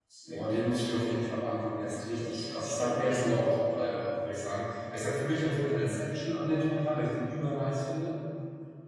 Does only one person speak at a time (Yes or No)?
No